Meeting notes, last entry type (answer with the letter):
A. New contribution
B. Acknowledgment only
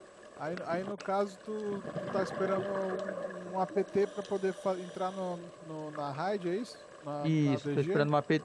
A